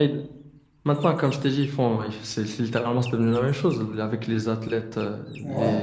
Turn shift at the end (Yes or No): No